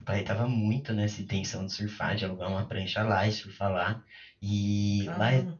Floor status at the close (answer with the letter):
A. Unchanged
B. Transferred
A